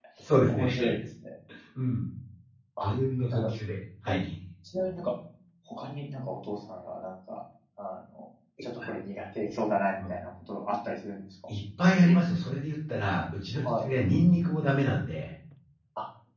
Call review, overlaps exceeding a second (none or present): none